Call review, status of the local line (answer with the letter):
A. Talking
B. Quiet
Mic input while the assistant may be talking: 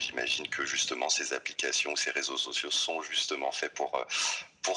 B